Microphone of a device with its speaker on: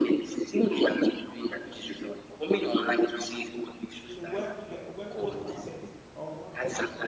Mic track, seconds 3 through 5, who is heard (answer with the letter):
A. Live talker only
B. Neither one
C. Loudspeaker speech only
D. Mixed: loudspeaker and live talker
D